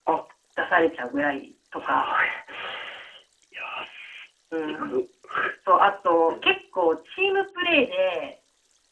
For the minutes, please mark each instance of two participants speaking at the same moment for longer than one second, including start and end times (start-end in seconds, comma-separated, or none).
none